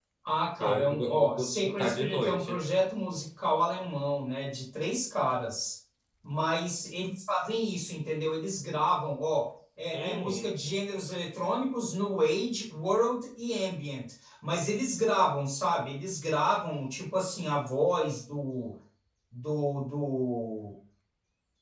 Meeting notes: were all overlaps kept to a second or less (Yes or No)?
No